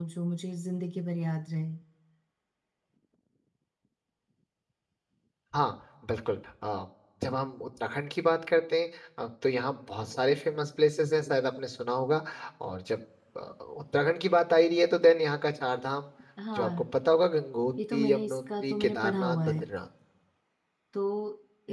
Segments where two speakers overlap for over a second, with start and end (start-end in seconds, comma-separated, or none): 17.9-19.6